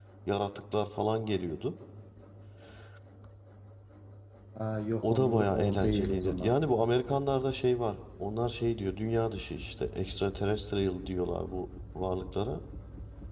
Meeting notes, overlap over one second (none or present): present